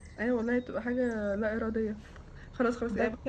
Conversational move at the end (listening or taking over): listening